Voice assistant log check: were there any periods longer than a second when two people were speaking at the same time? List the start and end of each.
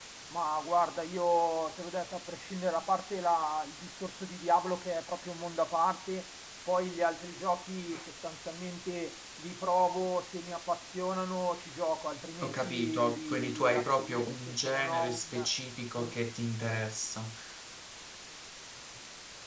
12.4-15.5

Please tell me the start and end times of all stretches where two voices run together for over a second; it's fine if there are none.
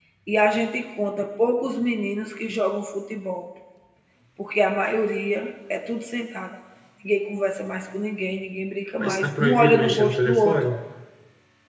9.0-10.6

